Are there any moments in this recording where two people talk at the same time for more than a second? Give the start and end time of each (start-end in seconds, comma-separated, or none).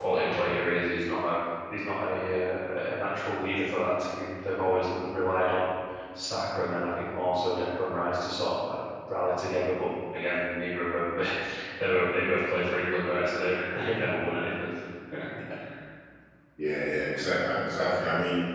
none